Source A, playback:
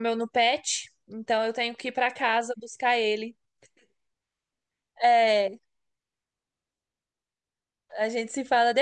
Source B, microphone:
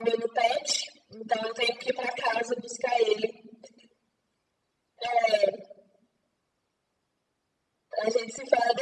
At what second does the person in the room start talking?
none

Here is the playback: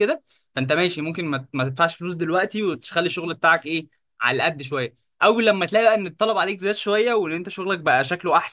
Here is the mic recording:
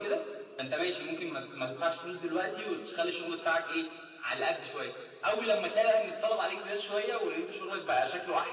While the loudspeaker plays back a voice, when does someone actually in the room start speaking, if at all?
none

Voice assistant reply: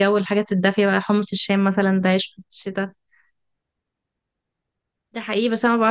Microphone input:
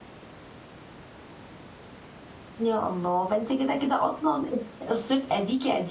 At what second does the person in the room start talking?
2.6 s

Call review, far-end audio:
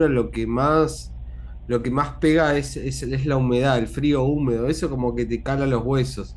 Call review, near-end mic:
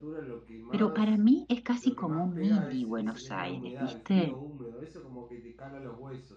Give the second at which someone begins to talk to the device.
0.7 s

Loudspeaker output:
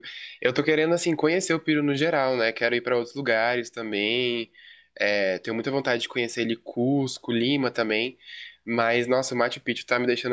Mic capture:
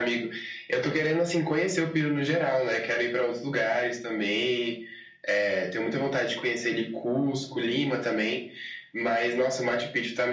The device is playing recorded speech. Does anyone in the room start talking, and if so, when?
none

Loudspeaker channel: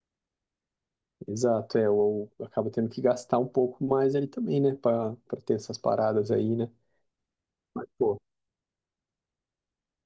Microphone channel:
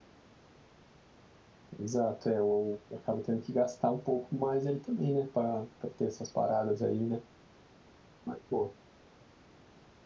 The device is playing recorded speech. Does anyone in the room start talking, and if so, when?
none

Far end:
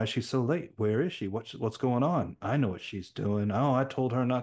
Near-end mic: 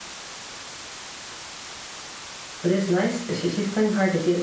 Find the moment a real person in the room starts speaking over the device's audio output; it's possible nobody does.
2.6 s

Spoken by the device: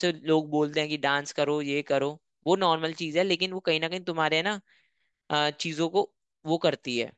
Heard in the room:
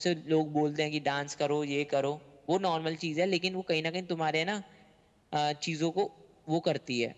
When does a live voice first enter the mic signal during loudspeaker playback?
none

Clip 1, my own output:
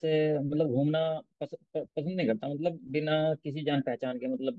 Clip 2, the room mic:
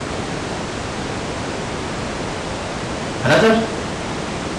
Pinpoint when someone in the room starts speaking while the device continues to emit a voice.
3.2 s

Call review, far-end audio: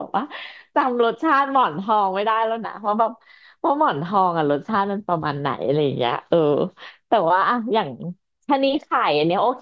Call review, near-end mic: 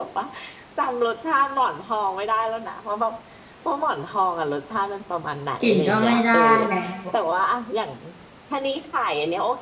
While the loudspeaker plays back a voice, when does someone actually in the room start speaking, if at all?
5.6 s

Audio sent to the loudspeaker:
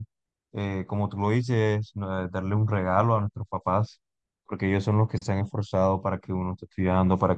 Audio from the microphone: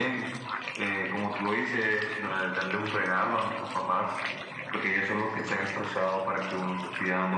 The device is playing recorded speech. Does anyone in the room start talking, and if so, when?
none

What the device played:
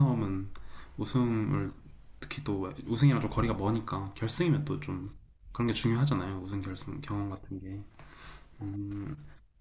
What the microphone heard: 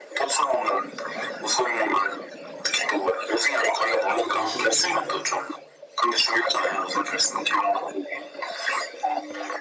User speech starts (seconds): 3.8 s

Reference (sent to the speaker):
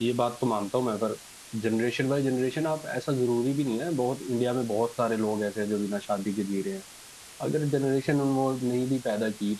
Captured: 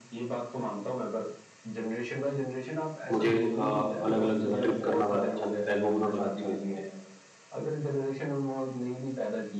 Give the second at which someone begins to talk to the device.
3.1 s

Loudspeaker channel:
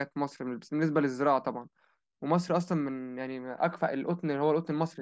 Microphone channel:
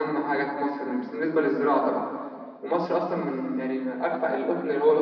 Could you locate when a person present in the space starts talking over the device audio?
none

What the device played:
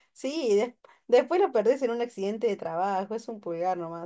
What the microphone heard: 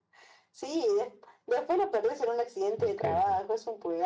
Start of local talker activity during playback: 2.7 s

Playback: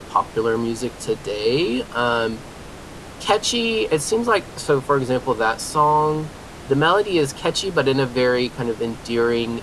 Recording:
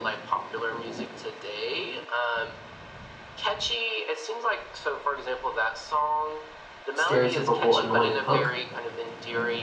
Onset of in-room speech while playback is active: 7.0 s

